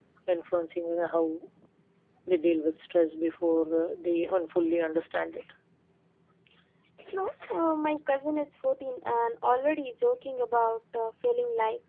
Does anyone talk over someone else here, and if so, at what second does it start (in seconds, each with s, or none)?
none